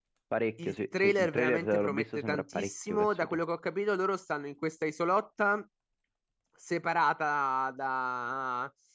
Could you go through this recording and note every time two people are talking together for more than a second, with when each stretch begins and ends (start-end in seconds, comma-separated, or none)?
0.6-3.4